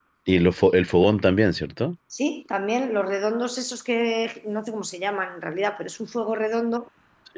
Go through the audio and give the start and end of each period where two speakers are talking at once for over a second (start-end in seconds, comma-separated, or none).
none